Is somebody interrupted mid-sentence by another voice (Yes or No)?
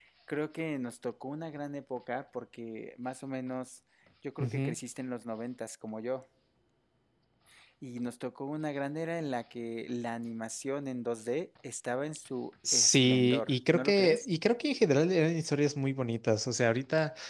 Yes